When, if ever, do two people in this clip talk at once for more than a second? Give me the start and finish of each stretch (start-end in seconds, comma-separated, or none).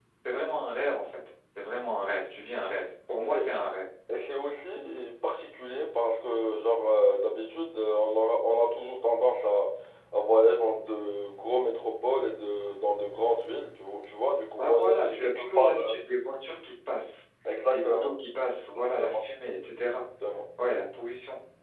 14.6-15.9